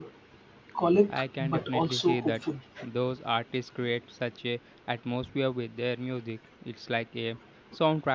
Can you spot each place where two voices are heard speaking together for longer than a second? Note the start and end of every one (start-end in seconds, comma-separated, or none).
1.1-2.4